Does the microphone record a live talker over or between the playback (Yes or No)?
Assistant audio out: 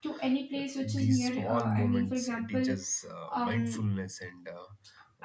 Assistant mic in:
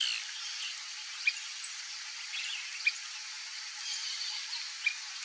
No